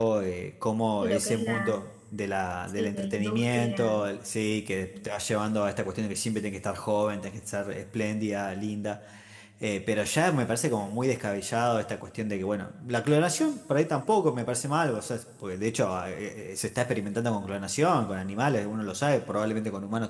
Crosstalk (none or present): present